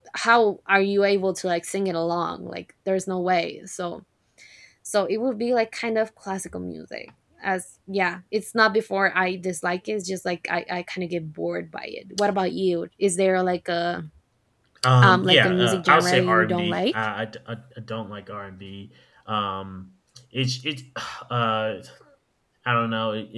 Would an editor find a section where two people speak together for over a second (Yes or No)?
Yes